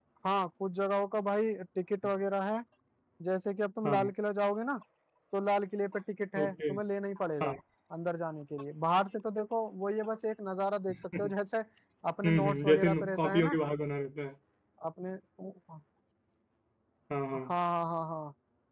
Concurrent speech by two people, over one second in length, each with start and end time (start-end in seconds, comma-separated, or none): 12.2-13.6